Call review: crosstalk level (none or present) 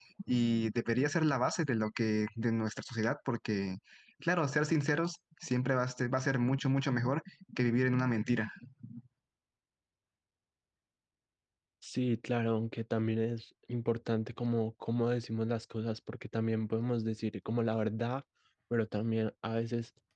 none